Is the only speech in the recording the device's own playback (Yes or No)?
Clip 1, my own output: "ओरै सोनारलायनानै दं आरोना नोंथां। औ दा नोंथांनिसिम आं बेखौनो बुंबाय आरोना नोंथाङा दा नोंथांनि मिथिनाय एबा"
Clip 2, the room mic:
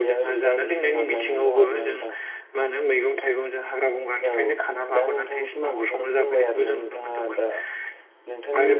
No